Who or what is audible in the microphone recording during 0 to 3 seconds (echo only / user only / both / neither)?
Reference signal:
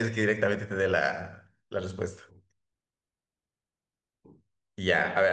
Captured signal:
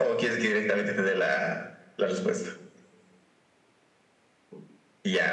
echo only